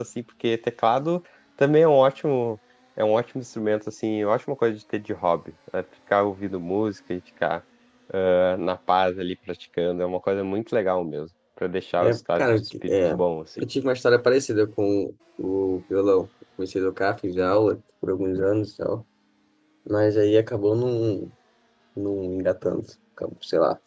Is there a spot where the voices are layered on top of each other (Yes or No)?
Yes